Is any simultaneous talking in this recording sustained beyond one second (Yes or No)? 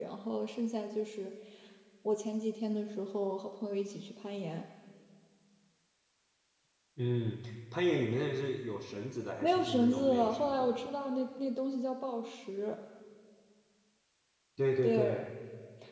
Yes